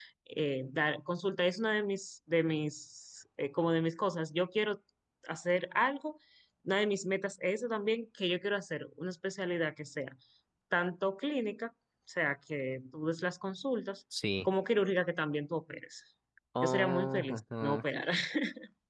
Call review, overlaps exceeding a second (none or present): present